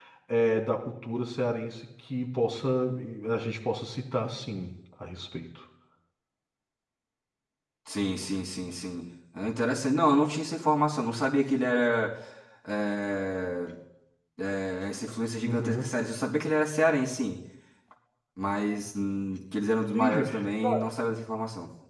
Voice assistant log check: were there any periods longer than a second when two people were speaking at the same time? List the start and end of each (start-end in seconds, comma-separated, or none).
none